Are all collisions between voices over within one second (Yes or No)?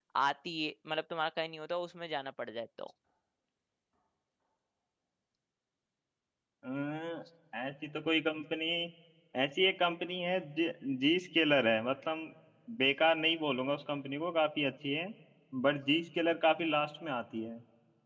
Yes